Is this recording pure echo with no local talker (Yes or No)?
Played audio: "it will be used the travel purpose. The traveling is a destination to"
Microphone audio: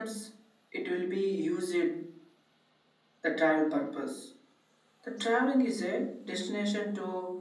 Yes